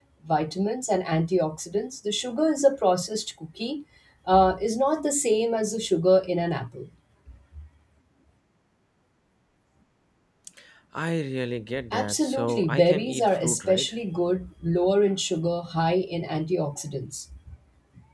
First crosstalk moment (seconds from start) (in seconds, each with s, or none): 11.9 s